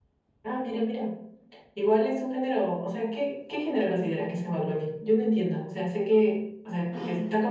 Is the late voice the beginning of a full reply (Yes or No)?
No